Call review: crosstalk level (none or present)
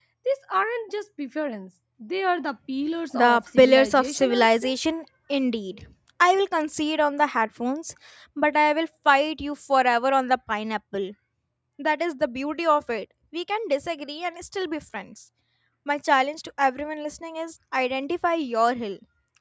present